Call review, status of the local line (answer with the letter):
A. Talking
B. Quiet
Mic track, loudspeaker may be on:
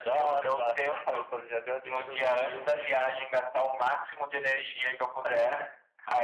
B